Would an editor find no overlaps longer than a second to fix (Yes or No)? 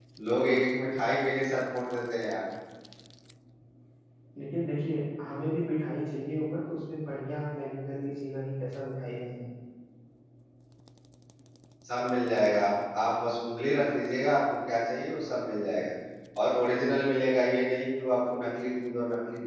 Yes